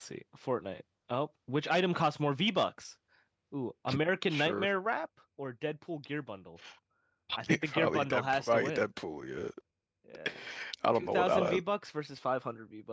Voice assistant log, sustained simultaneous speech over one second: present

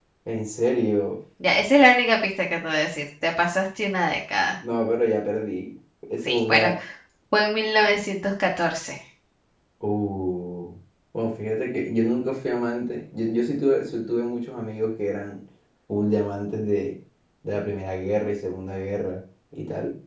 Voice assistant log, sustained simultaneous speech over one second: none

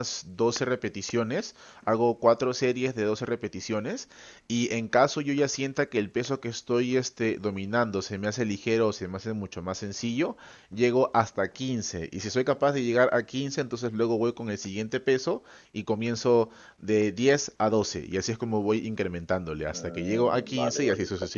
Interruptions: present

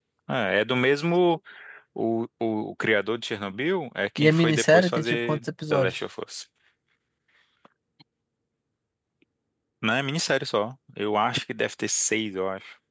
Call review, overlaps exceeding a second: present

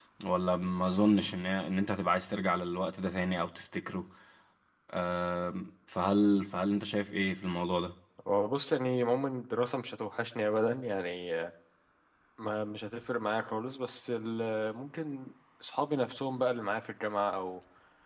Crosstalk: none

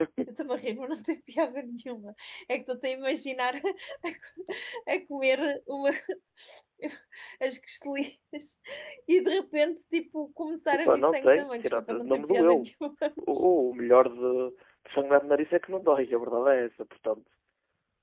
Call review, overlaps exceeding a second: present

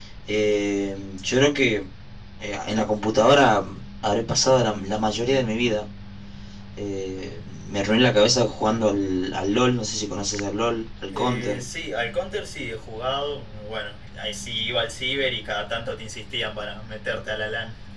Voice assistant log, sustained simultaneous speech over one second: none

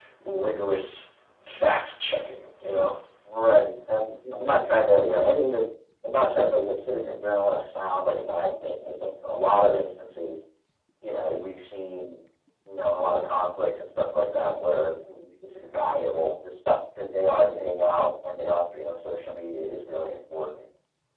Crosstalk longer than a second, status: none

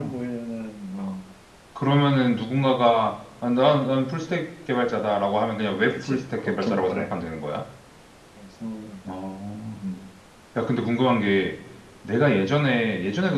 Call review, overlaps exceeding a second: present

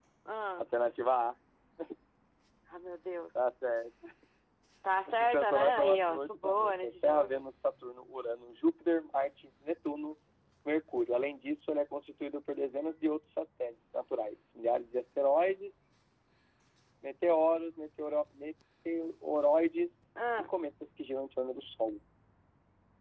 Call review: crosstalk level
present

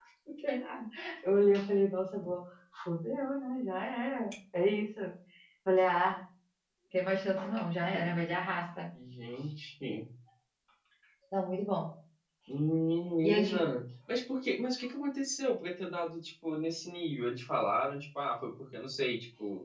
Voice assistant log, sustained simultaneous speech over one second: none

